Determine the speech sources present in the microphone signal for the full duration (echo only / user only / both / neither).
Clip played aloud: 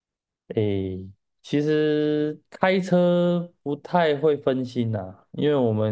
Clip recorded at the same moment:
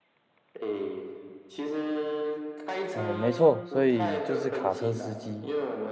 both